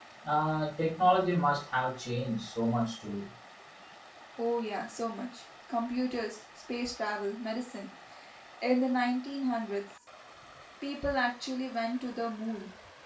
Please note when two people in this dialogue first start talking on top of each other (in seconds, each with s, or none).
none